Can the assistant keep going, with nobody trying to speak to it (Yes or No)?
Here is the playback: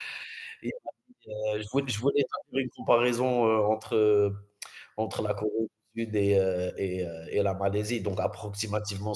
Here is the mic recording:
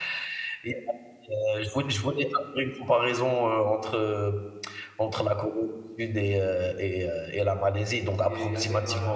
No